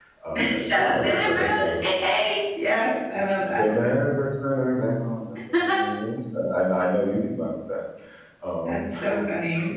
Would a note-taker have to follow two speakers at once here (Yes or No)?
Yes